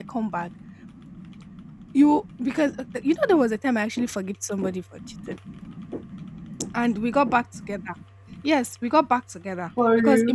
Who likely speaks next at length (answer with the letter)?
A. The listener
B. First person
B